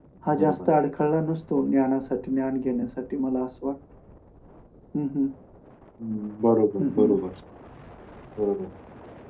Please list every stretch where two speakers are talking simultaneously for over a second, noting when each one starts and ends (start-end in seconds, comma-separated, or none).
none